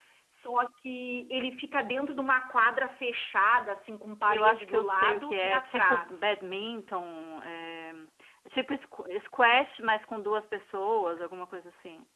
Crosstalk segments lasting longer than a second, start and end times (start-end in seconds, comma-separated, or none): 4.3-6.5